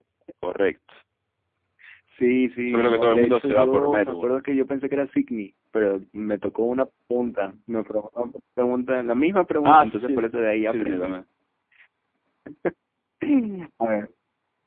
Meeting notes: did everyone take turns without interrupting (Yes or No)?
No